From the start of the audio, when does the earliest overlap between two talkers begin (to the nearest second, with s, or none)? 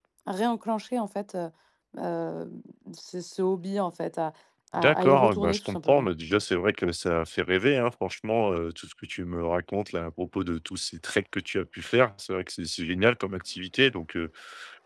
5 s